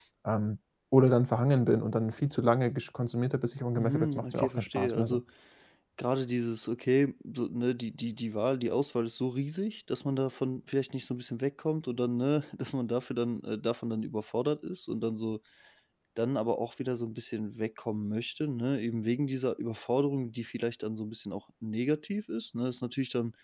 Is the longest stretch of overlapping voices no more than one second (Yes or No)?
No